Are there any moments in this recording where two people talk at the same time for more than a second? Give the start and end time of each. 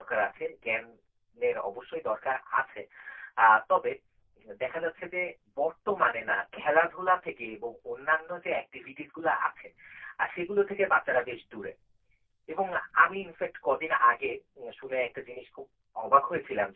none

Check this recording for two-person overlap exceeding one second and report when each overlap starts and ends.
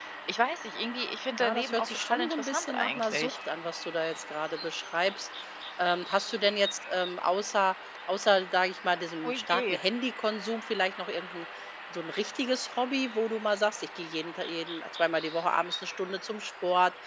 1.4-3.4

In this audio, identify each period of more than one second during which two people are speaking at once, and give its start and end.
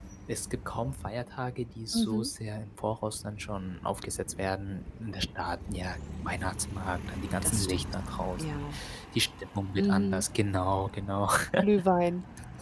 none

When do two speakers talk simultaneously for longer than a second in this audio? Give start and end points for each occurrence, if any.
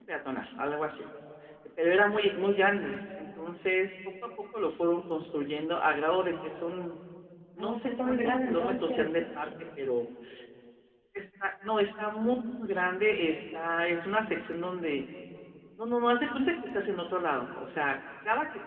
7.6-9.1

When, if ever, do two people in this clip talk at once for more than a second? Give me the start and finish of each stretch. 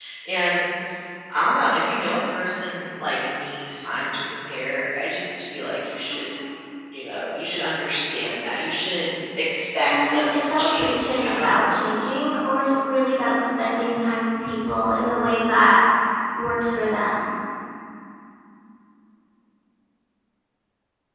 9.8-11.6

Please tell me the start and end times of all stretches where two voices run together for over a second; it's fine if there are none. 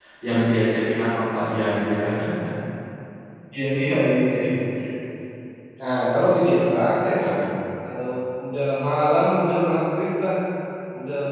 none

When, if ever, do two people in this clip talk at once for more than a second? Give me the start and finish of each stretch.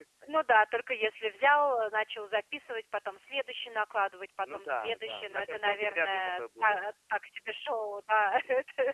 4.4-6.8

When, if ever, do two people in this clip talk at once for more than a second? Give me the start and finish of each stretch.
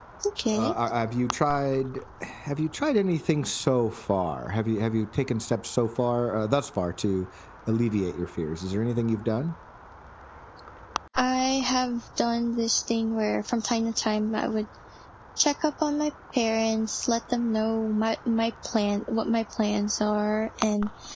none

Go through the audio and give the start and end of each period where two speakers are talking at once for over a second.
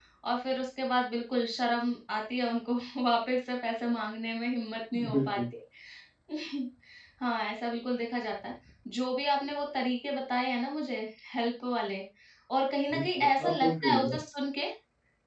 12.9-14.2

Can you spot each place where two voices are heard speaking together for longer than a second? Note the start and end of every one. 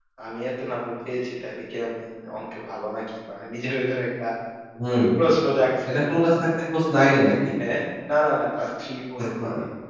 none

